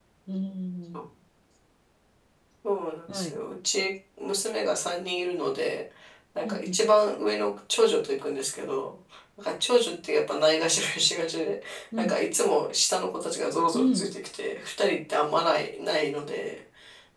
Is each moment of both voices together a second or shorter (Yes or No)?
Yes